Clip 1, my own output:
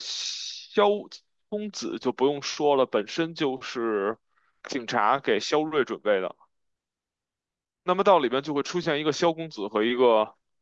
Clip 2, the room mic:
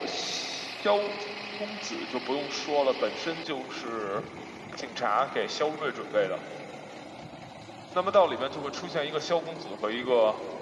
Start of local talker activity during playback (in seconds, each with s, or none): none